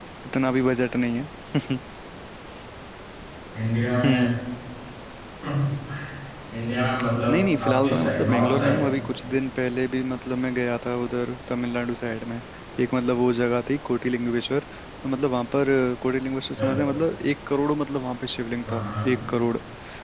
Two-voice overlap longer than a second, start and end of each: 7.3-8.8

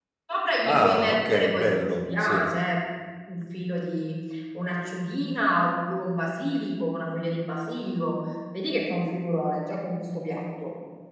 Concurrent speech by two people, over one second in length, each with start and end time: 0.6-2.5

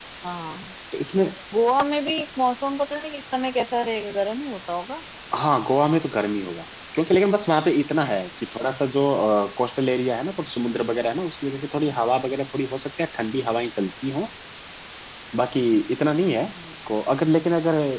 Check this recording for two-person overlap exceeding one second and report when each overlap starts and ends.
none

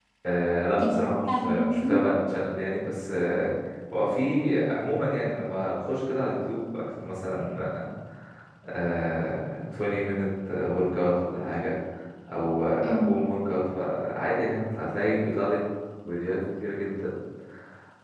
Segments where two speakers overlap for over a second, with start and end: 0.8-2.0

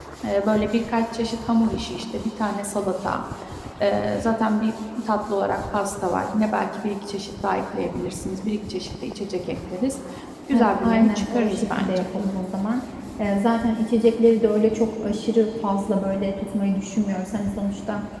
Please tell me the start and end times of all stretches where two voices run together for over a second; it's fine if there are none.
10.5-12.1

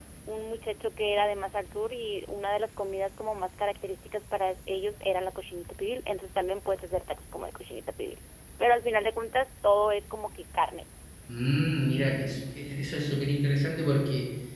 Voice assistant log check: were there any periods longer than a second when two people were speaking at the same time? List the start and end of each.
none

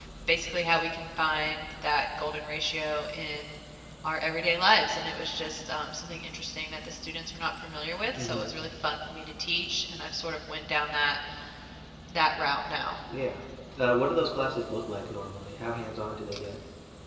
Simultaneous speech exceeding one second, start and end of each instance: none

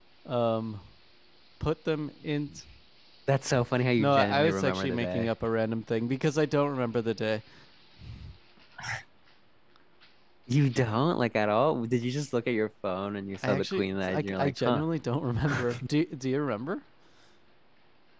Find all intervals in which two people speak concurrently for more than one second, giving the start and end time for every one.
4.0-5.3, 13.5-14.8

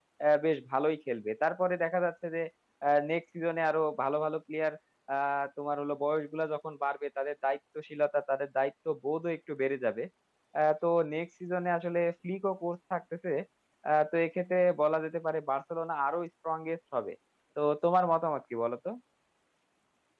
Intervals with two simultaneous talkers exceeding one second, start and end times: none

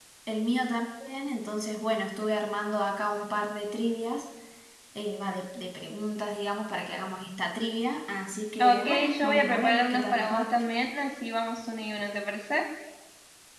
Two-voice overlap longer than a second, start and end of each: 8.6-10.5

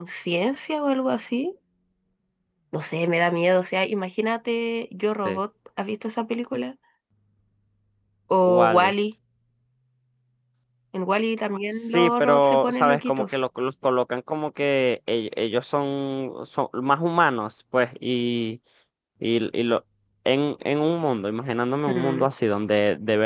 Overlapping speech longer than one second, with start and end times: 11.7-13.2

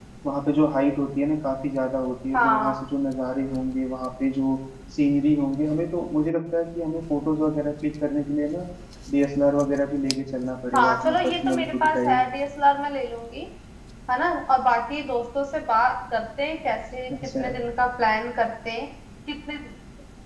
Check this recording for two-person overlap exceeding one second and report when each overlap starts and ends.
10.7-12.2

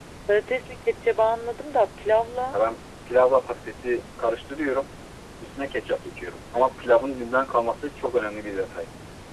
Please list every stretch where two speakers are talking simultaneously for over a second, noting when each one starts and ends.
none

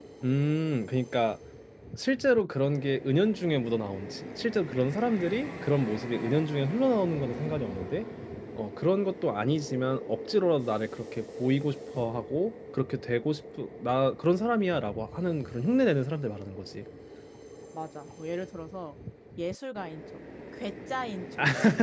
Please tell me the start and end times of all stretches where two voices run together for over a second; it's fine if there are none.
none

